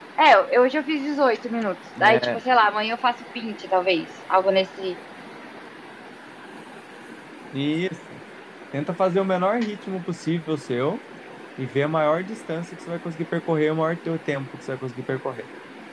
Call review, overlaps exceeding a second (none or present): none